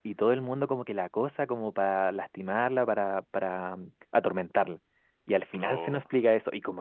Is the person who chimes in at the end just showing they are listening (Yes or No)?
Yes